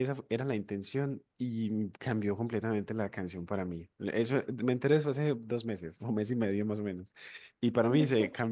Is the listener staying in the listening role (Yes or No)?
Yes